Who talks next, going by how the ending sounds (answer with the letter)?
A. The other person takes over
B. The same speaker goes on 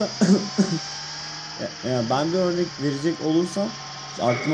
B